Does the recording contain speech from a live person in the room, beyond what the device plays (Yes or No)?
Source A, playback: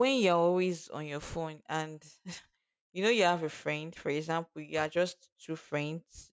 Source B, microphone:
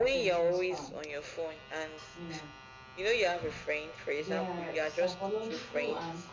Yes